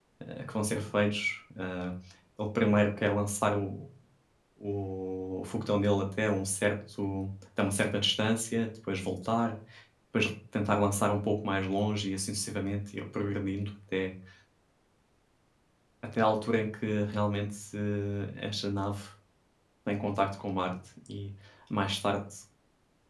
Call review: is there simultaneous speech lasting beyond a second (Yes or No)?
No